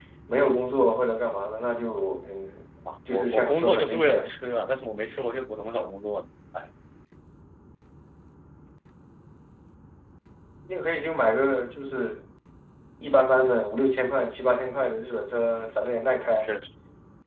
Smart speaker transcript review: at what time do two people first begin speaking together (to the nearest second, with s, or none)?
3 s